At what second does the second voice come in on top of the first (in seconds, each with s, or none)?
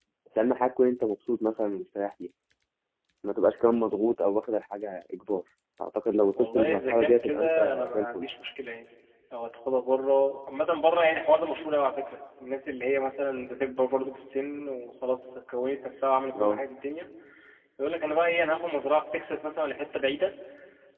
6.4 s